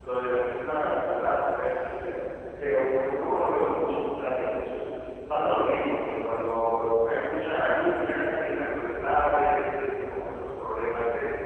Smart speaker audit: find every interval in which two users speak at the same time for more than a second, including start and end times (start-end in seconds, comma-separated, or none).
none